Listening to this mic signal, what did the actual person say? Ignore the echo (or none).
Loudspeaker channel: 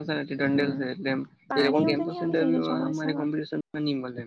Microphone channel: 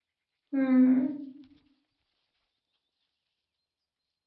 હમ